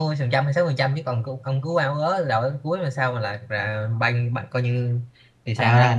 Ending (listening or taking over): taking over